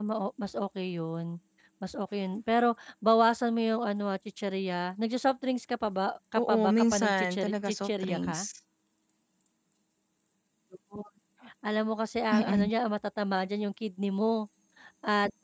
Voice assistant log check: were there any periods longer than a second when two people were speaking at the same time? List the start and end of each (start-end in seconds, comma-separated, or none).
6.4-8.5